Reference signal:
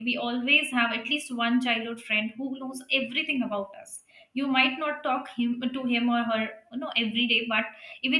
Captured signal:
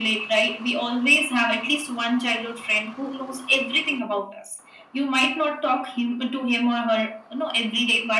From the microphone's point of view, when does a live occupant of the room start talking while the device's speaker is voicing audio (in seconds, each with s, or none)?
none